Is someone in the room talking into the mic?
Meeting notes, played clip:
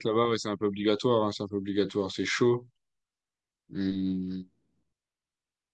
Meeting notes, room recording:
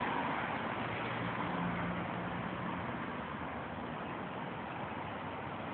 No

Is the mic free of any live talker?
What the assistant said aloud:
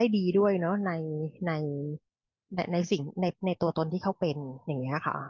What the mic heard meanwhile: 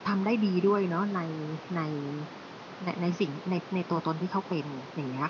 Yes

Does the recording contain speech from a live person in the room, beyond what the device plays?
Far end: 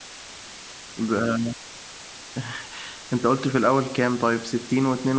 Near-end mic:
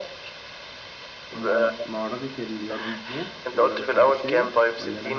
Yes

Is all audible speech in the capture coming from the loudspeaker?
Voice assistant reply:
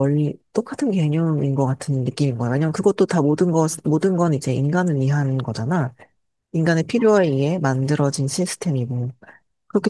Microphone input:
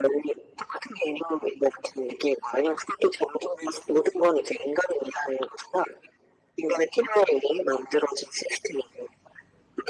Yes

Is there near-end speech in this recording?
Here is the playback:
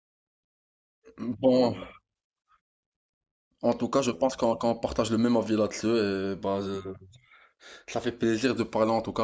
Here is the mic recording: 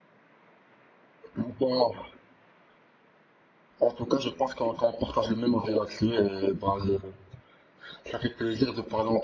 No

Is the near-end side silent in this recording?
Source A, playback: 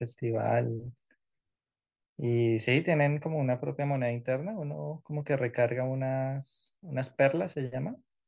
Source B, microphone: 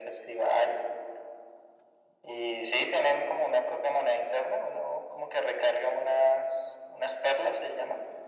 Yes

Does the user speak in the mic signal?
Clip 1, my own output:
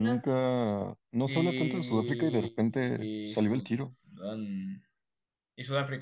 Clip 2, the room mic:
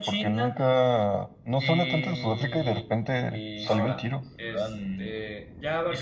Yes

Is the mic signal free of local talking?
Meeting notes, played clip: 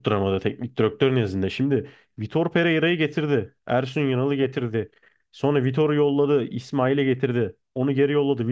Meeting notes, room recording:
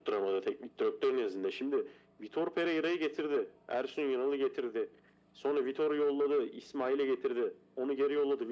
Yes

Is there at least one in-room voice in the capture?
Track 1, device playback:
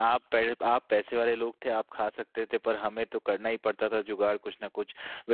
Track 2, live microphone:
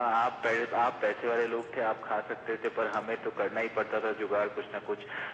No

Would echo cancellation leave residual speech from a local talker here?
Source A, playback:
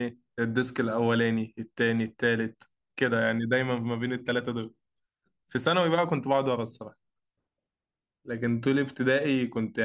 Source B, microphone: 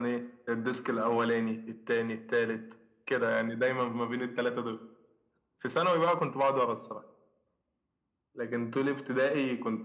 No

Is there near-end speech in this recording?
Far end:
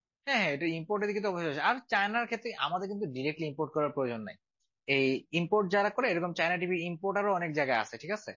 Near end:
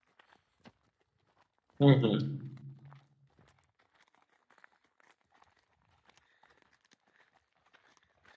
Yes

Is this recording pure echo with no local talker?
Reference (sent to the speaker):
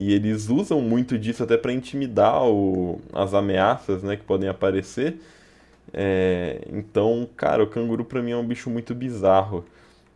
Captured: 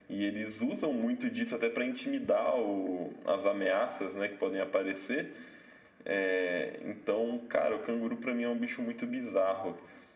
Yes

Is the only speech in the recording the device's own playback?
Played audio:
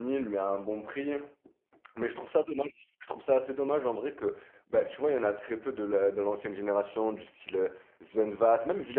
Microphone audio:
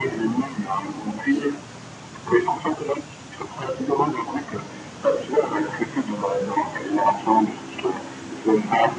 Yes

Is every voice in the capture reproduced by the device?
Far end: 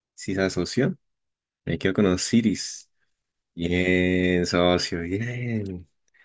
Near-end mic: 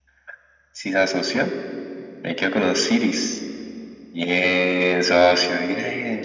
Yes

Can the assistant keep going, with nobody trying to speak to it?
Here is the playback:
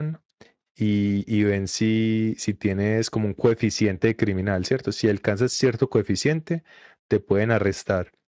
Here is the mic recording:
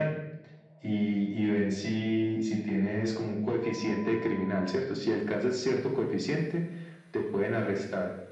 Yes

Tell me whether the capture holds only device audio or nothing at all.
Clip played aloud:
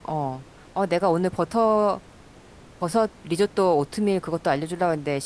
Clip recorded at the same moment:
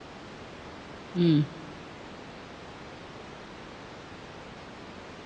No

